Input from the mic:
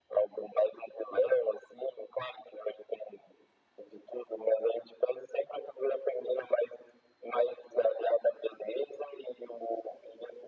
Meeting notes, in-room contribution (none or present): none